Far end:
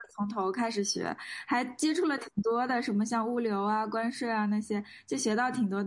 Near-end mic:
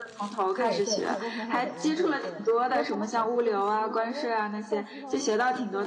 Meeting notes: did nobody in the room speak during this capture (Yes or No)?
No